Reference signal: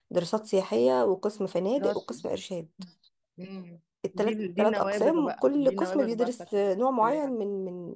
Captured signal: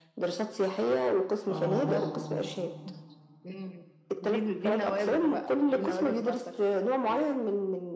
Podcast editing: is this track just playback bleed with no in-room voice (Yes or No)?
No